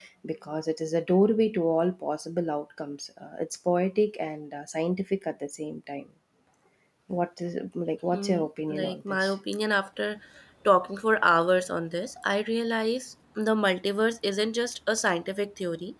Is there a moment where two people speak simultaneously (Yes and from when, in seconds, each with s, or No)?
Yes, from 8.1 s